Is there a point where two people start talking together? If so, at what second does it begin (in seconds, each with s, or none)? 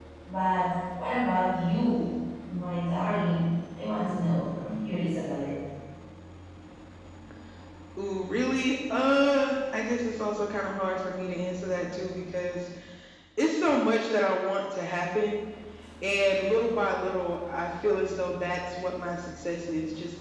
none